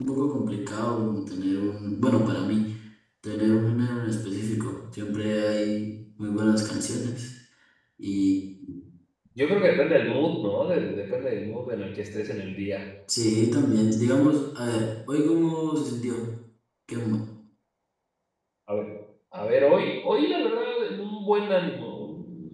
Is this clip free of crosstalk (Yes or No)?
Yes